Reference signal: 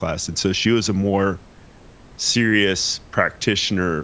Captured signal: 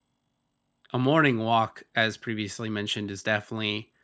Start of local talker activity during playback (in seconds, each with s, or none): 0.9 s